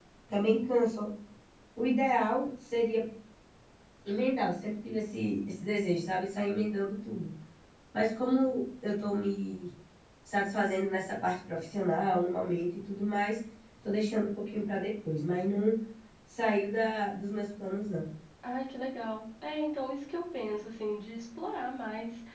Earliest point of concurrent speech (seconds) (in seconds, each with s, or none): none